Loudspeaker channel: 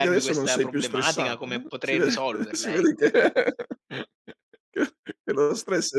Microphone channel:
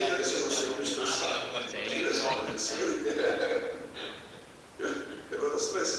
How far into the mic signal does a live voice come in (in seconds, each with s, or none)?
1.4 s